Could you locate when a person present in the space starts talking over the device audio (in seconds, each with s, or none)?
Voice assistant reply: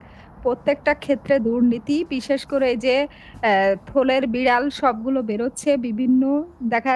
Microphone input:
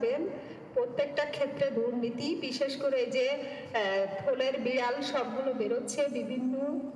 none